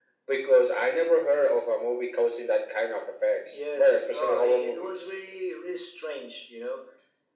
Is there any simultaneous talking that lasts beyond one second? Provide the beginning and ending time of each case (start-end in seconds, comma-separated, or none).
3.5-5.1